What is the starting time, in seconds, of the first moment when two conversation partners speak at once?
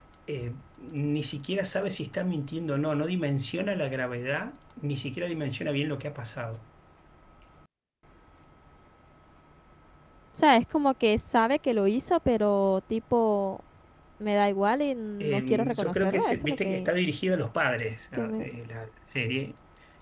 15.2 s

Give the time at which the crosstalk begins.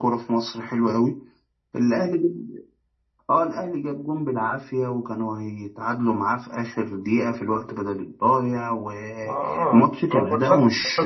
9.2 s

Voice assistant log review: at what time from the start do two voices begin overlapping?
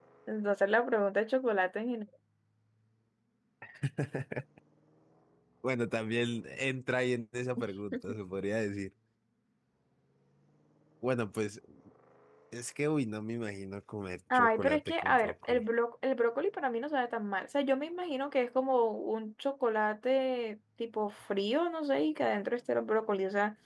14.3 s

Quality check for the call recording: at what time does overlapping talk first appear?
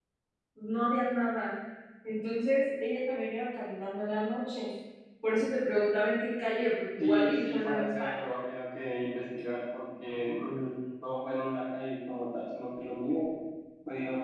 7.0 s

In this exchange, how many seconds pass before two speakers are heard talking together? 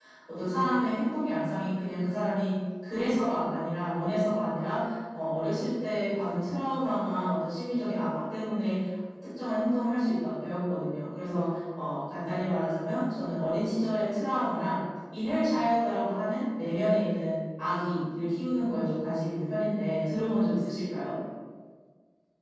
none

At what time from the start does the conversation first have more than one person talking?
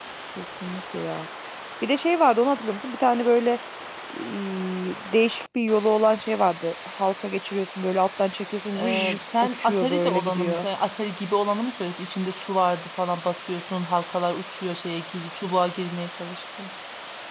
8.7 s

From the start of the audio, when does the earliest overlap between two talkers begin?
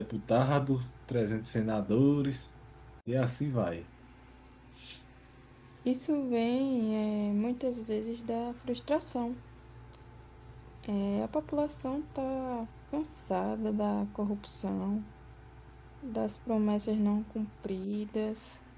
none

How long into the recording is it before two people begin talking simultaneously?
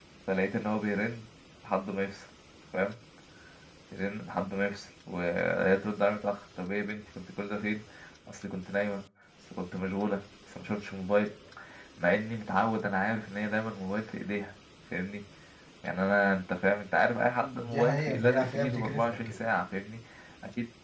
17.7 s

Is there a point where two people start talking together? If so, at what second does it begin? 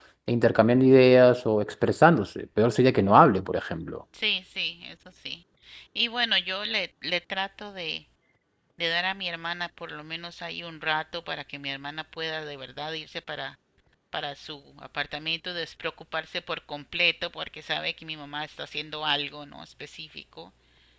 none

